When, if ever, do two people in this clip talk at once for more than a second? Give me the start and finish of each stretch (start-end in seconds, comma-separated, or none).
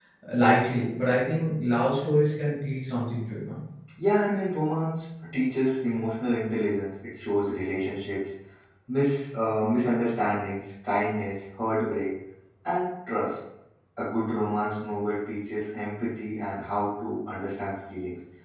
none